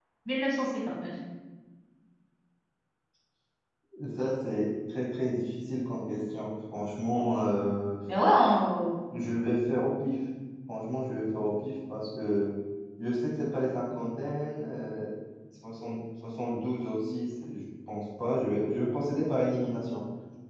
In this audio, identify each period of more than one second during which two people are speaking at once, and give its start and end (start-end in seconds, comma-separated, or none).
none